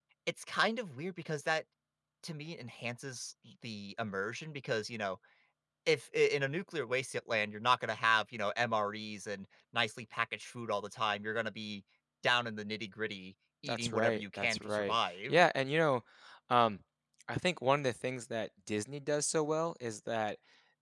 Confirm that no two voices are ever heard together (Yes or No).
No